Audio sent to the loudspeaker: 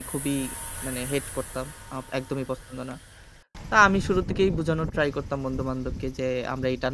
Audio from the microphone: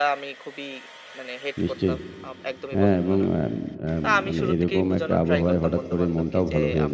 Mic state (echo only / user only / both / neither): both